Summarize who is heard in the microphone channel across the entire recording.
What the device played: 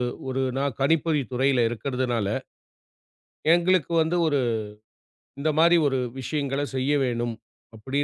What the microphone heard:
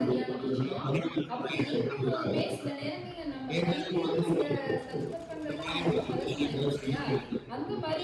both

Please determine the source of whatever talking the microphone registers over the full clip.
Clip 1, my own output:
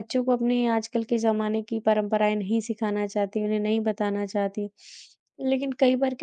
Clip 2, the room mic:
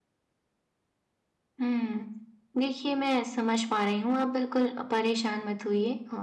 user only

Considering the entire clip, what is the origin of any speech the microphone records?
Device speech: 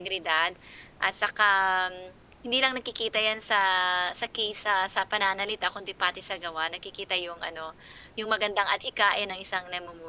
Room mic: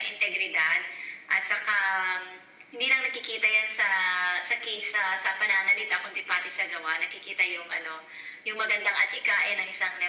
echo only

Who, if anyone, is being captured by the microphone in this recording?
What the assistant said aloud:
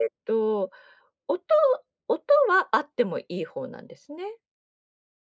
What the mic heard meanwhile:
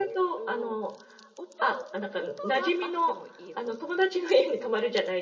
both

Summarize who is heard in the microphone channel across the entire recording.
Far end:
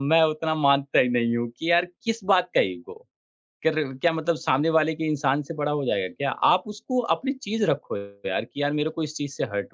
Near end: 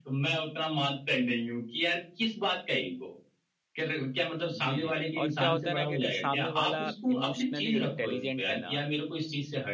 both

